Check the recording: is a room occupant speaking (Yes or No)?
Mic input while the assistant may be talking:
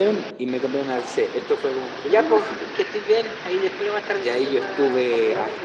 No